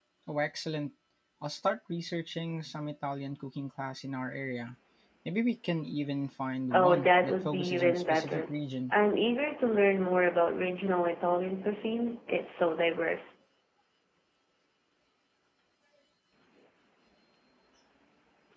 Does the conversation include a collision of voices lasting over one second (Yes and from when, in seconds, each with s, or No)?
Yes, from 6.7 s